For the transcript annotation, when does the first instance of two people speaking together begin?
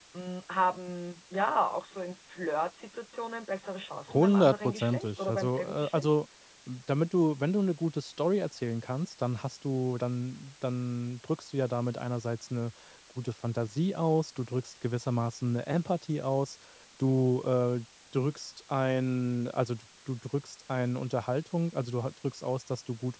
4.1 s

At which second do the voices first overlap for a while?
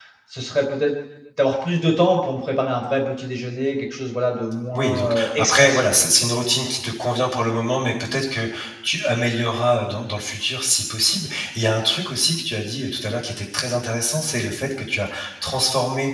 4.7 s

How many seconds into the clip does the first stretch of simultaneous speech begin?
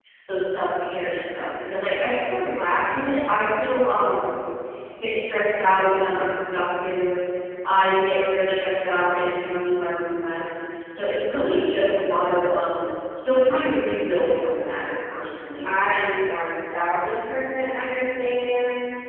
none

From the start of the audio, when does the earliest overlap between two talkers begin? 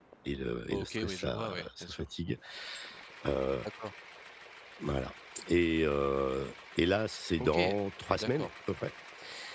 0.7 s

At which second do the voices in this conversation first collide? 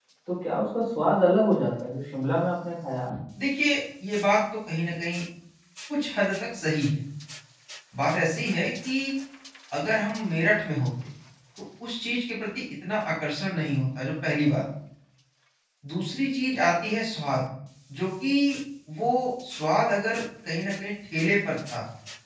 none

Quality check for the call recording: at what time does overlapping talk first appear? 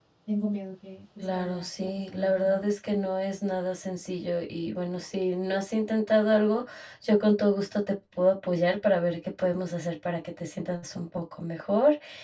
1.2 s

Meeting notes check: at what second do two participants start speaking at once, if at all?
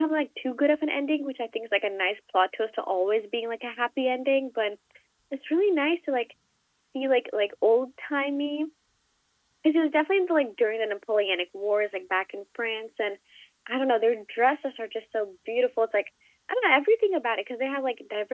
none

